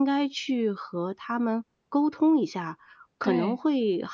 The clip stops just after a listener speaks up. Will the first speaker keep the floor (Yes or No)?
Yes